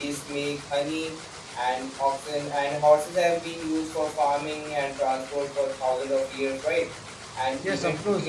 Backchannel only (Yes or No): No